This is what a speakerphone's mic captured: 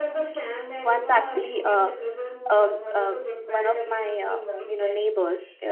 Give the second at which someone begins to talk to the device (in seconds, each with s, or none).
0.8 s